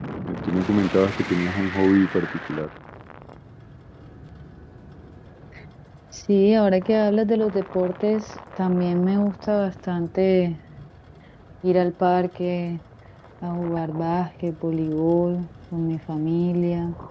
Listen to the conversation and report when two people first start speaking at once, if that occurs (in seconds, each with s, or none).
none